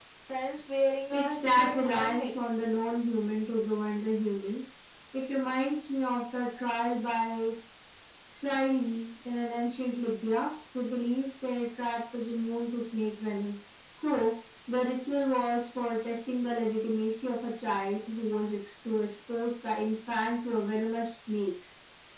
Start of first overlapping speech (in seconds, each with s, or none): 1.1 s